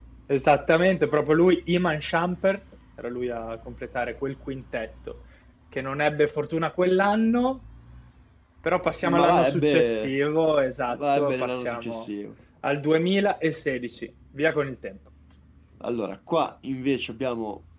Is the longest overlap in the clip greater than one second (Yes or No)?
Yes